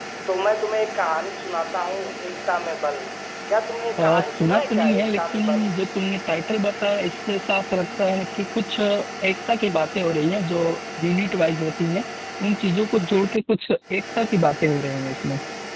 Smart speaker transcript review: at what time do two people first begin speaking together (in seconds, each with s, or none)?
4.0 s